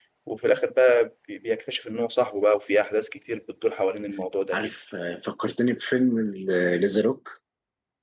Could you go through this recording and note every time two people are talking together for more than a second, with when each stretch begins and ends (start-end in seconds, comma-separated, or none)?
none